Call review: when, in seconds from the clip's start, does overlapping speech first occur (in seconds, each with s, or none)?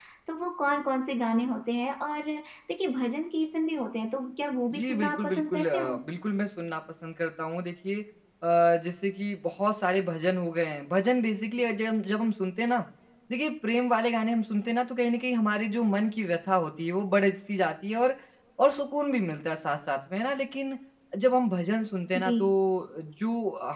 4.8 s